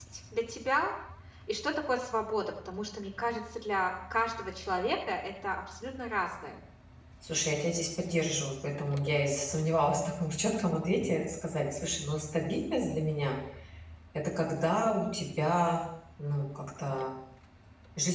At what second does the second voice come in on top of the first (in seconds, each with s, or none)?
none